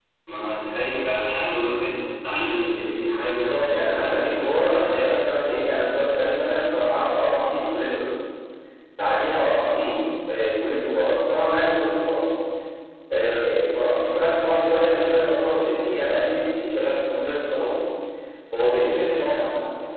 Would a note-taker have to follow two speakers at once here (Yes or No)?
Yes